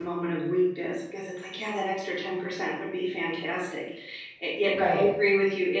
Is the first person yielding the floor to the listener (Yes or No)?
No